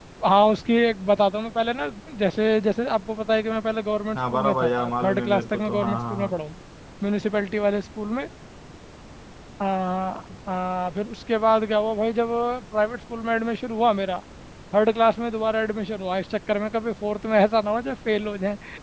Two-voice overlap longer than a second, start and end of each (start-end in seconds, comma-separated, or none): 4.2-6.3